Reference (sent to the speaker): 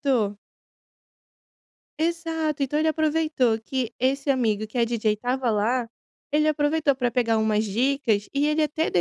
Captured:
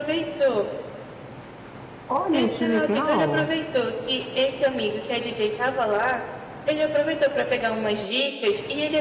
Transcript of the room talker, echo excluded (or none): Olha que legal!